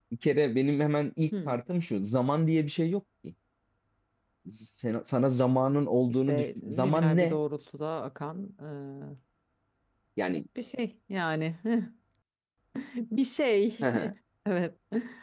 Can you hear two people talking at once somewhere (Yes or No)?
Yes